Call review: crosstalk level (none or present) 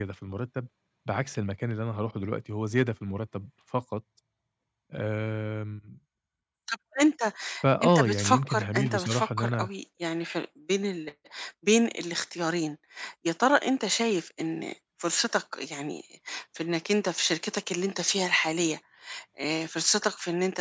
present